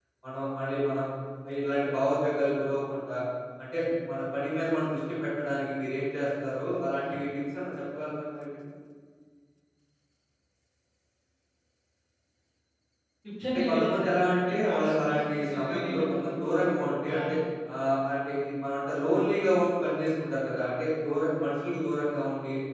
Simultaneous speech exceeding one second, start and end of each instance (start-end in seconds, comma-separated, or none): 13.5-16.5